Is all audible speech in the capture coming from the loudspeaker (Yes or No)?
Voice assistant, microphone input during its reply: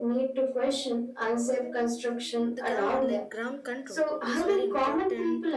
No